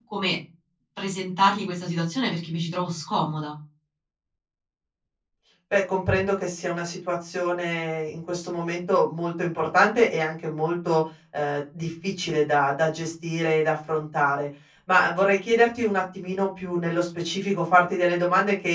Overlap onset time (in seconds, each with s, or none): none